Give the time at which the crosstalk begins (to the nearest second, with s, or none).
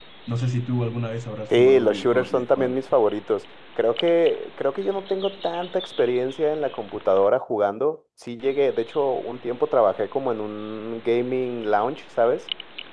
2 s